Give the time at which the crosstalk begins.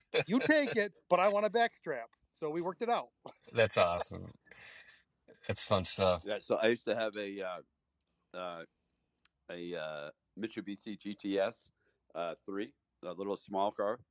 none

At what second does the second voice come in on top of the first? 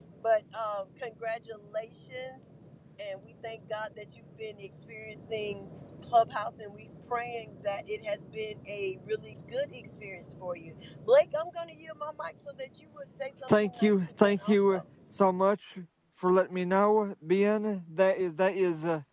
13.5 s

